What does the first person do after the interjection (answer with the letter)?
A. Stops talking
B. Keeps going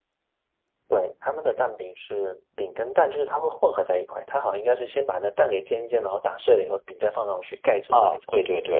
A